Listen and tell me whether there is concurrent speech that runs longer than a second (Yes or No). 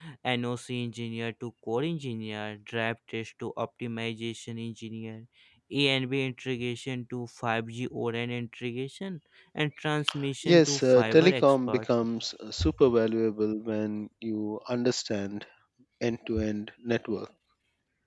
Yes